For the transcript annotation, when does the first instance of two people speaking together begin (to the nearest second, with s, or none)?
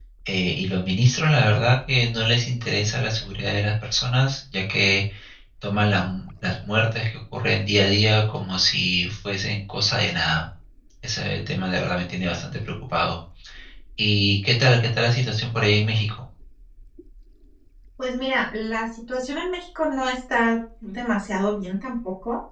none